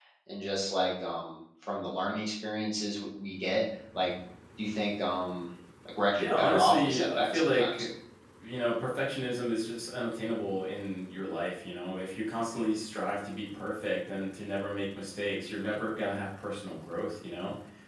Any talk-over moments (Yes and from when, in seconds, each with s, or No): Yes, from 6.2 s